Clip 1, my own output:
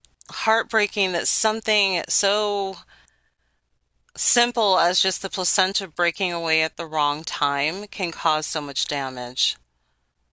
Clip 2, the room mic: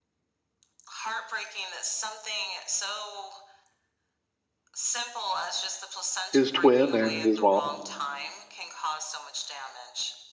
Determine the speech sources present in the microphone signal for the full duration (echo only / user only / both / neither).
both